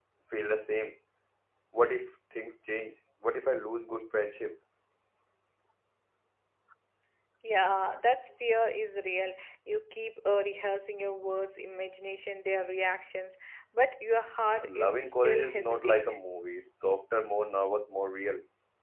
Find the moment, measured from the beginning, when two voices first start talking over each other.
14.6 s

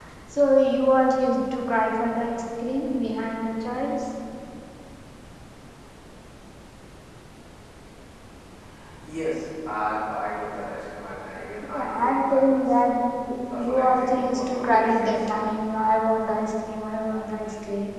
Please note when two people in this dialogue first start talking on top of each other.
11.7 s

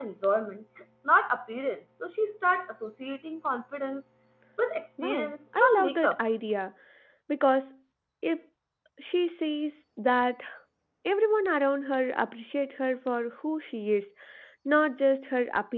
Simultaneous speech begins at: 5.0 s

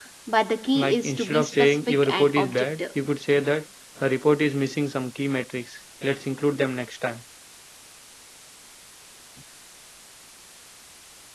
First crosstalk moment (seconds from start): 0.8 s

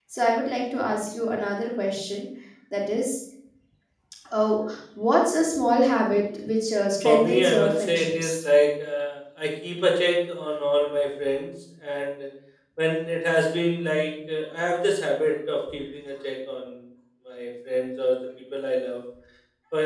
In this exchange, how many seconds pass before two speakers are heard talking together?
7.0 s

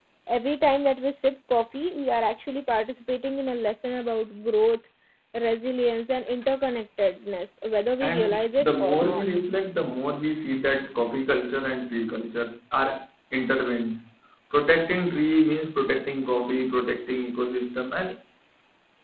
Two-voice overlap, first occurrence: 8.0 s

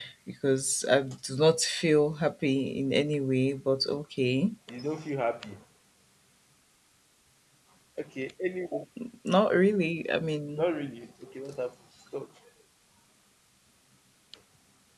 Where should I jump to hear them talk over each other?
none

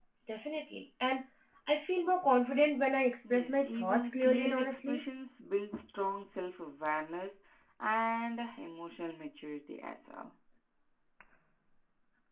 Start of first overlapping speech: 3.2 s

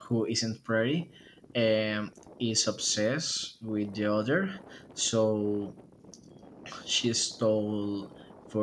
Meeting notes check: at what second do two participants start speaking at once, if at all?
none

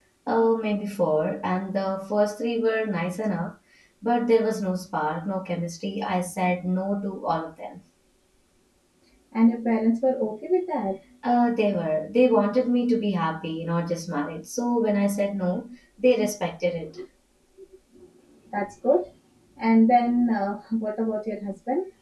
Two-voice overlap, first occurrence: none

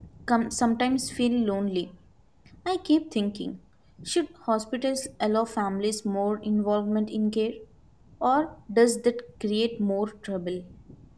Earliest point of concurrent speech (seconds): none

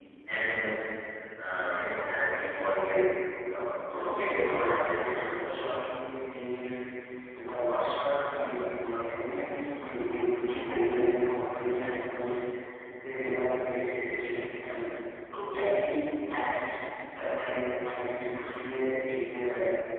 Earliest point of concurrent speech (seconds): 3.8 s

